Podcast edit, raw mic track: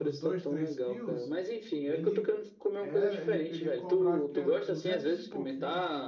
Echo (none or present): present